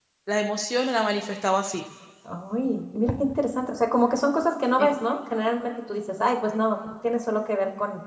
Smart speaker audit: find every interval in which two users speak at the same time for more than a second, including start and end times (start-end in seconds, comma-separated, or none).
none